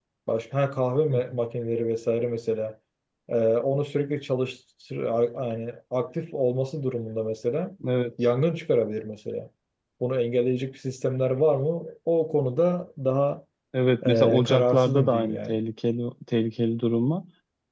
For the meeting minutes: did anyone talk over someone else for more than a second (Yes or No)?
Yes